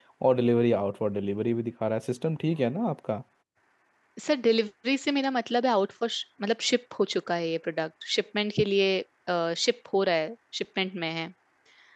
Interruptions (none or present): none